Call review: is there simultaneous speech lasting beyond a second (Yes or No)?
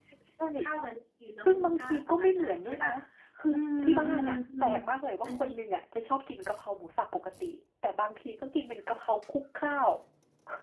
Yes